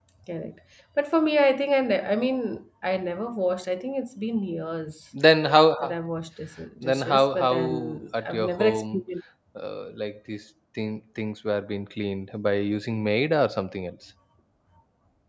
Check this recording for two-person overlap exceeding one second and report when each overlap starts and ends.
6.8-9.0

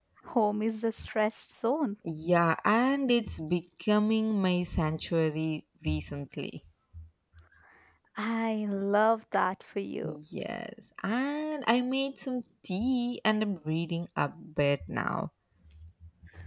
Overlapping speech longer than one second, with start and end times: none

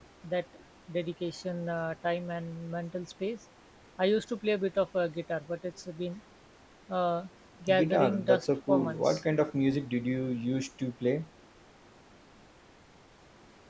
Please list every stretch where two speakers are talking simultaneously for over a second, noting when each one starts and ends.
7.7-9.2

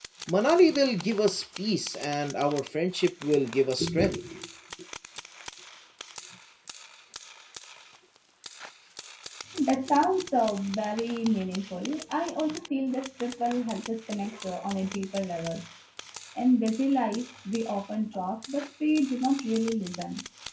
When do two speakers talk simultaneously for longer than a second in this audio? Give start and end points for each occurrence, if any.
none

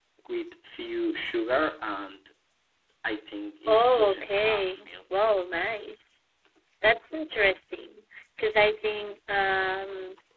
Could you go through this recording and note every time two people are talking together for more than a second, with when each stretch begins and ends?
3.7-4.9

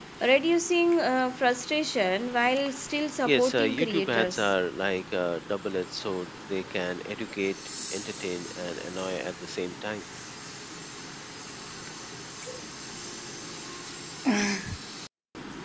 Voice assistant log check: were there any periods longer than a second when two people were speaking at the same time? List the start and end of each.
3.2-4.5

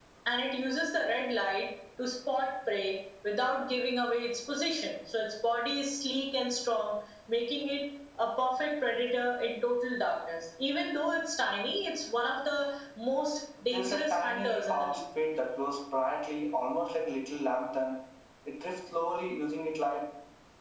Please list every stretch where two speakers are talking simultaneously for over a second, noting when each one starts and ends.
13.6-15.0

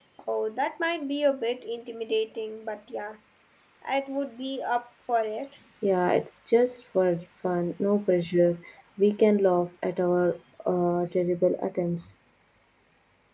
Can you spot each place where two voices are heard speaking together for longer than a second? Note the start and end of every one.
none

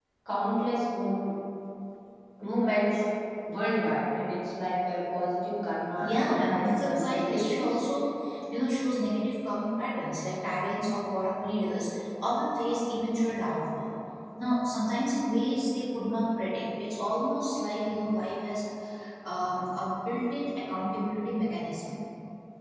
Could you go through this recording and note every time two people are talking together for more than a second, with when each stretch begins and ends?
6.0-7.8

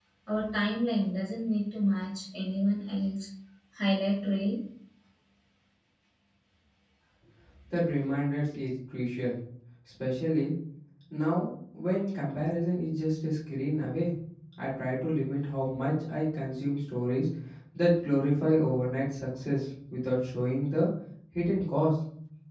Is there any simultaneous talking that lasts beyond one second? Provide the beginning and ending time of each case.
none

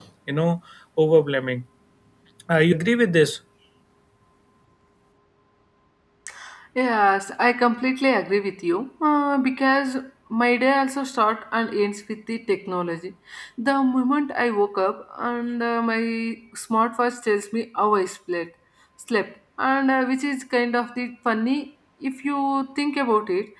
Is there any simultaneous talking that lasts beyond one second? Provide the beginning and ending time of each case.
none

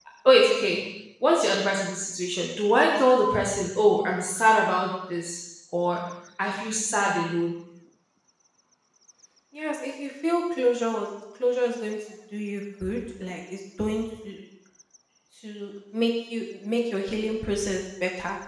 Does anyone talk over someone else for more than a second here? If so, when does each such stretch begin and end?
none

